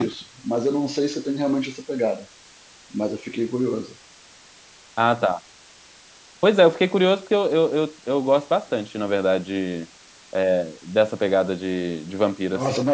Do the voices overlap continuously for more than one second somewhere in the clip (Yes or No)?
No